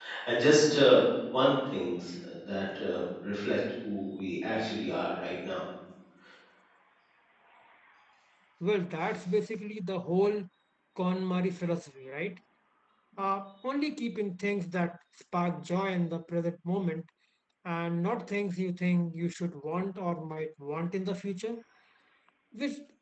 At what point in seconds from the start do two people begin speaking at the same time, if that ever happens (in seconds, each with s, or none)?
none